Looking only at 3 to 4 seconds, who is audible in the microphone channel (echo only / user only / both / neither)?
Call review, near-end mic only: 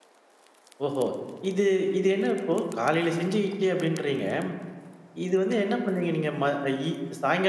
user only